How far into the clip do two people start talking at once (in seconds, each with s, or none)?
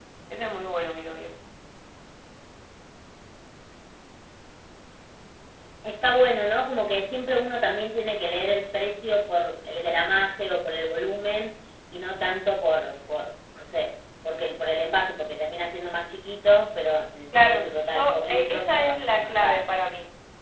17.3 s